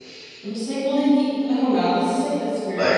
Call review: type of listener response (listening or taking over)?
listening